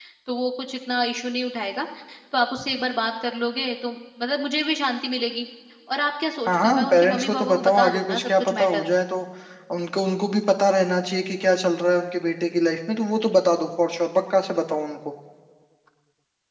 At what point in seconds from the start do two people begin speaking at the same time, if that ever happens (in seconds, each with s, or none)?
6.5 s